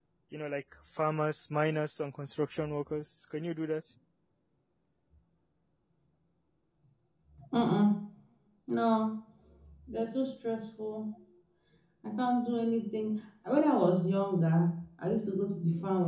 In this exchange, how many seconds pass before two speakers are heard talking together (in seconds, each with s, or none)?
none